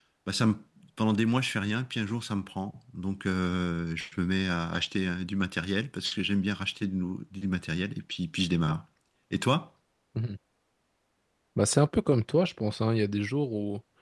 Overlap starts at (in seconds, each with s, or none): none